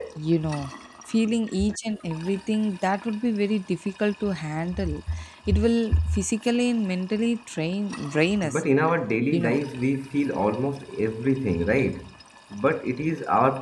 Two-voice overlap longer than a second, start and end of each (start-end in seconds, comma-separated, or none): none